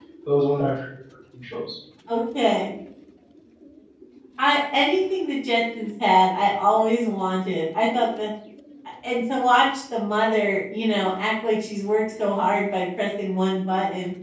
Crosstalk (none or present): none